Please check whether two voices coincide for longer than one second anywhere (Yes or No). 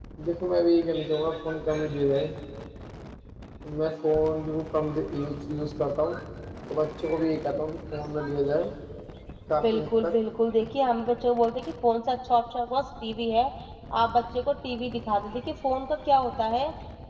No